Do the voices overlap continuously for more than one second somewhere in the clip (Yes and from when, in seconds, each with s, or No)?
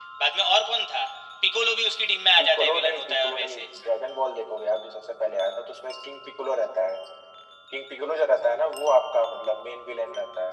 Yes, from 2.4 s